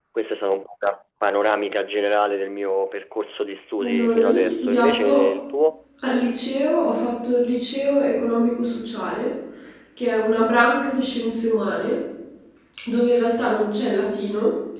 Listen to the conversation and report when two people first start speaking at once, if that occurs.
3.8 s

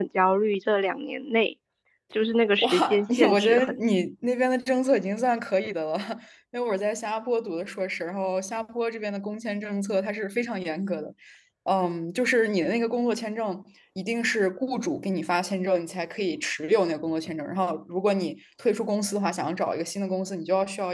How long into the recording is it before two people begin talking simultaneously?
2.6 s

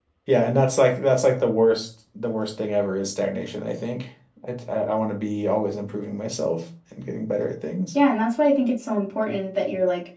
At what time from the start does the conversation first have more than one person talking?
none

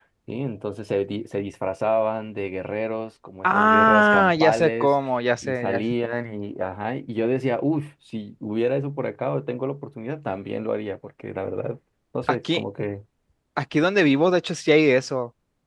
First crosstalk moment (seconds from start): 3.4 s

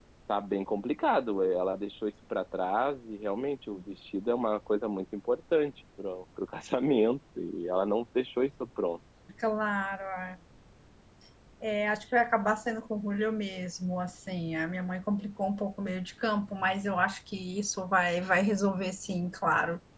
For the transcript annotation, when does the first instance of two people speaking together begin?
none

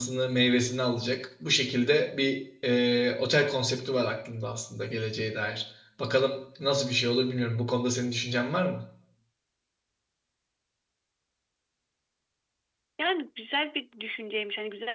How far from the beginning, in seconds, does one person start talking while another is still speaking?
none

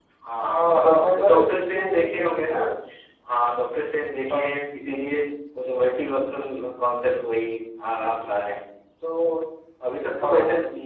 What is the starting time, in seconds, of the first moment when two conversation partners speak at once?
0.5 s

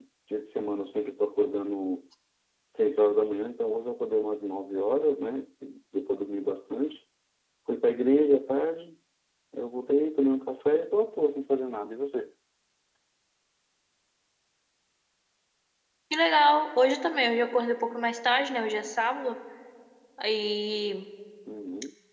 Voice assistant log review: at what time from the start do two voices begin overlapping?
none

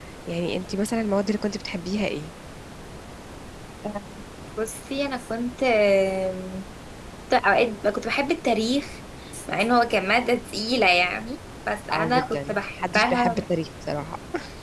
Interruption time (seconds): 11.9 s

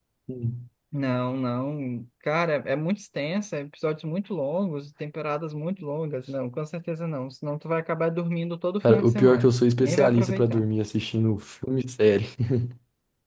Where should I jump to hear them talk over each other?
8.8 s

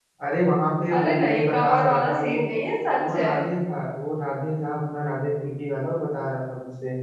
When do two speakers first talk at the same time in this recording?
0.9 s

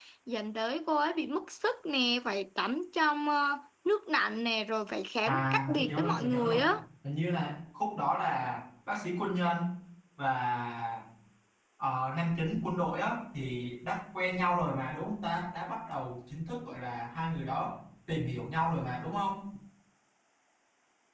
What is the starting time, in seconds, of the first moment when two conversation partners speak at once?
5.2 s

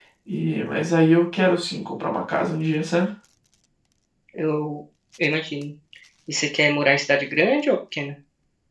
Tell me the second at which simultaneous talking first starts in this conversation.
none

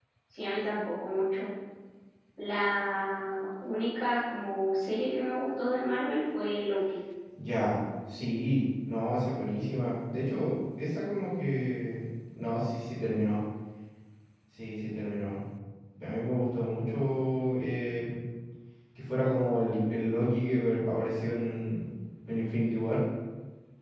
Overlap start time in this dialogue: none

